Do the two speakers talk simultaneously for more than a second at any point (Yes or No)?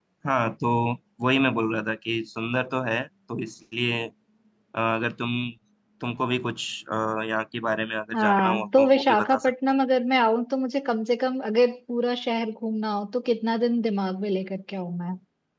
Yes